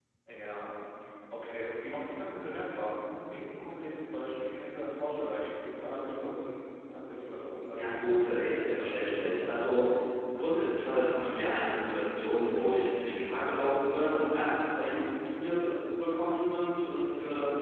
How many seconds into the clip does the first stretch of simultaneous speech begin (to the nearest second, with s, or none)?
8 s